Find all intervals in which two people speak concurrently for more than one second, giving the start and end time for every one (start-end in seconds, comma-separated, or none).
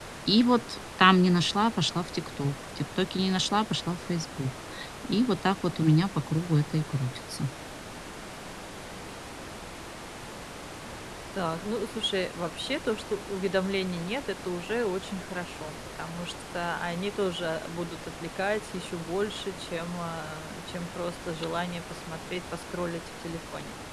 none